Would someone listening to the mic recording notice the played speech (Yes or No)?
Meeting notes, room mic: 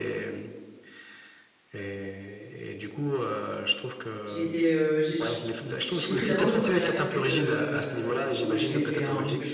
Yes